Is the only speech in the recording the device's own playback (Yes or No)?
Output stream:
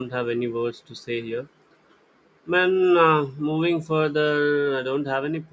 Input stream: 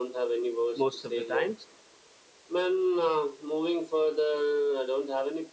No